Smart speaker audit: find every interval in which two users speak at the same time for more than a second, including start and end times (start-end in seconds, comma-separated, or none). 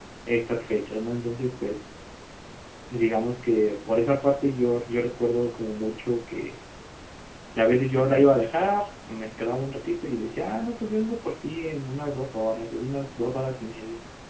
none